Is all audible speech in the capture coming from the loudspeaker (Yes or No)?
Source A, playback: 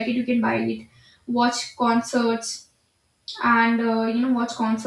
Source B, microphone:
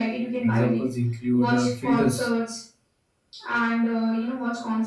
No